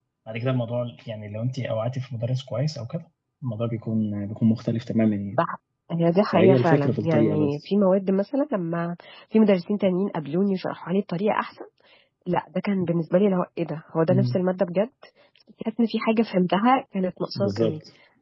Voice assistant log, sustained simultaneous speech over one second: present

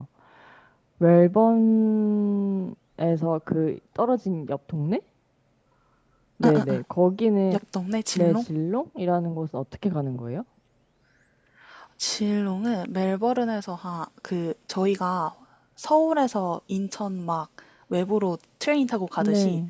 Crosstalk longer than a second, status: none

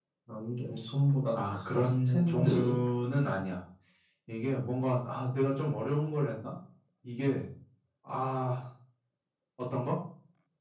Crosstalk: present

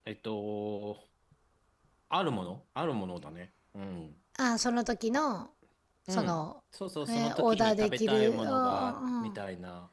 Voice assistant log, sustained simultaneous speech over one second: present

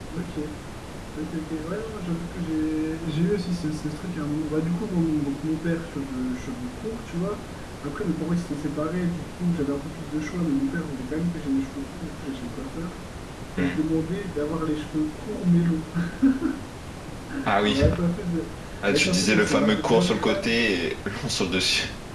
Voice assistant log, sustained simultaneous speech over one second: present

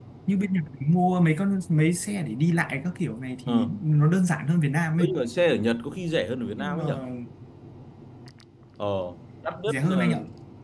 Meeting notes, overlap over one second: none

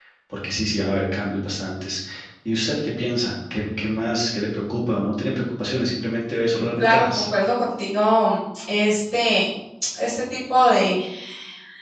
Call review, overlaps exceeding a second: none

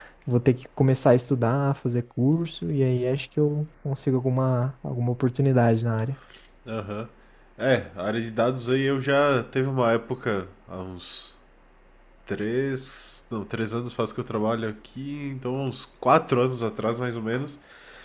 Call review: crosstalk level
none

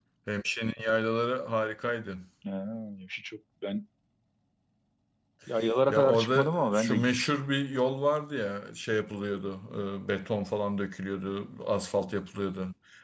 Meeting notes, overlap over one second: present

